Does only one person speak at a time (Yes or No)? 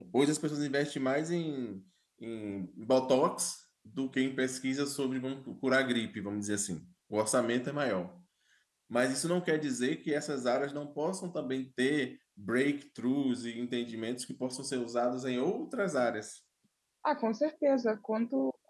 Yes